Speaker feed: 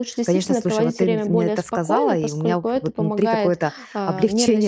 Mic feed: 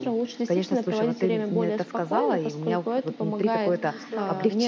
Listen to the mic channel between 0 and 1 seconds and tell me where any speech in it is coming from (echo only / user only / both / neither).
echo only